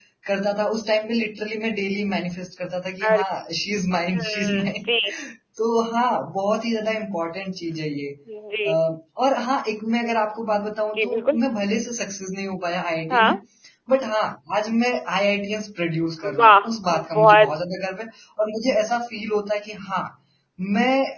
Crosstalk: present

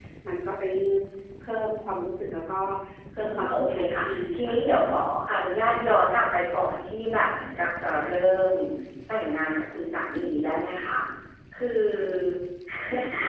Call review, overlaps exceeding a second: present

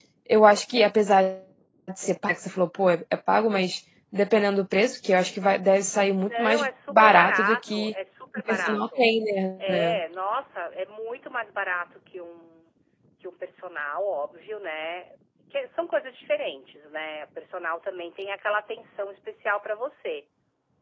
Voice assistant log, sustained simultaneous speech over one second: present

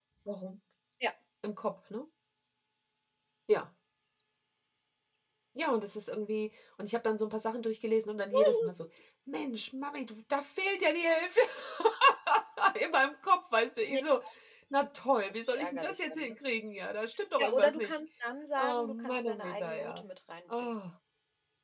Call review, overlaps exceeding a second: present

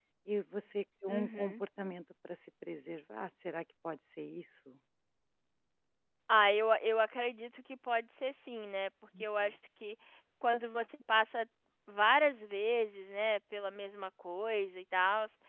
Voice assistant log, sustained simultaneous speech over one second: none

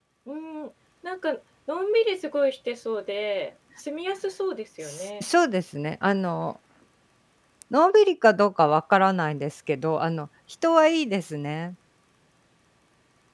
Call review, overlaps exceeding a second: none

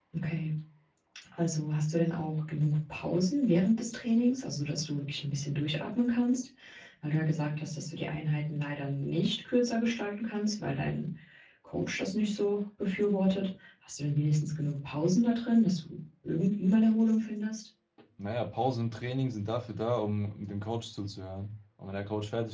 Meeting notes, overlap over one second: none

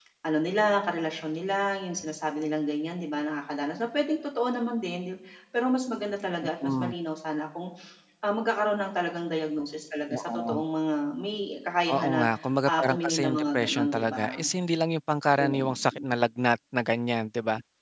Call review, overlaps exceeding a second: present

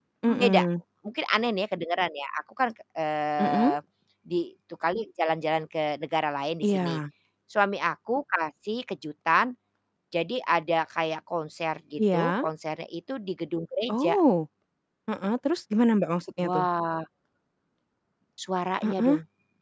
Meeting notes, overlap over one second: none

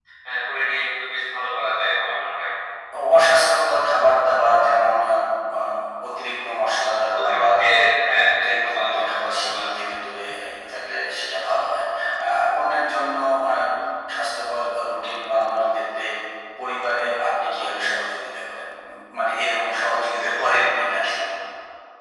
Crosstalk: present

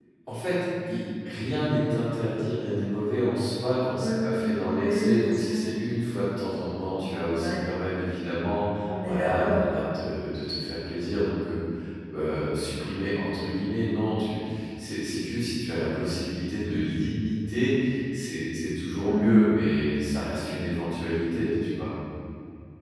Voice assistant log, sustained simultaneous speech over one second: present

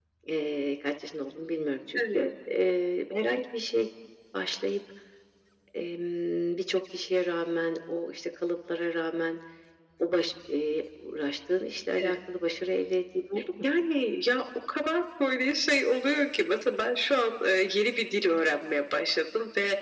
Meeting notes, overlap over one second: none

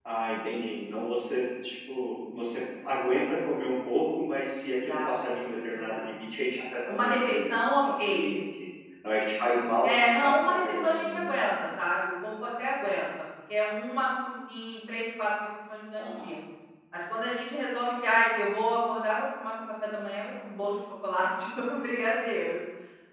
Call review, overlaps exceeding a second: present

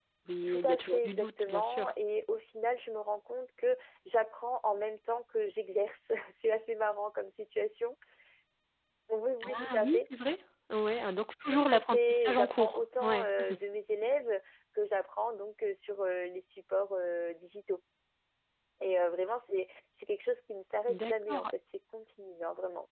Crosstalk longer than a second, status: present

